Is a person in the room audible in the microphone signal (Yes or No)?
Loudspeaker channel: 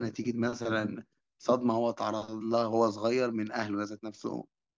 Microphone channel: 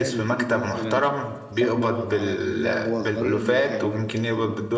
Yes